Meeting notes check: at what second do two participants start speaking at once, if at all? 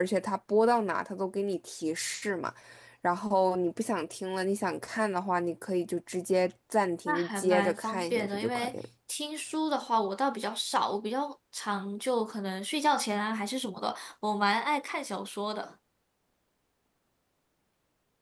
7.1 s

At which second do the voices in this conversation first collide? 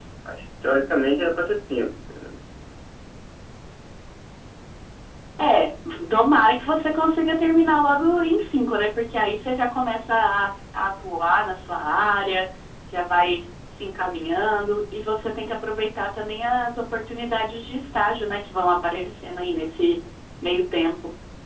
none

